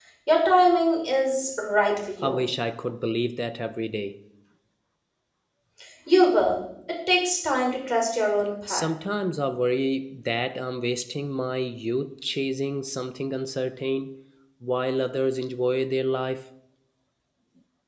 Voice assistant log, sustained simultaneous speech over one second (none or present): none